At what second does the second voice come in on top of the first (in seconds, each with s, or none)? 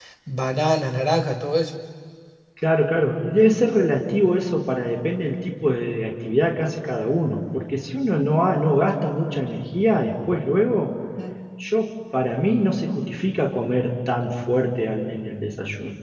none